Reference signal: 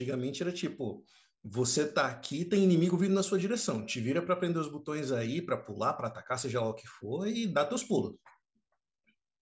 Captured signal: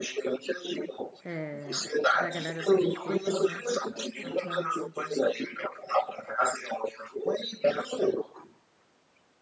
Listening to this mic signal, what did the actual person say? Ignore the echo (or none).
é da galera do PlayStation, né? Aí eu fui lá na casa dele.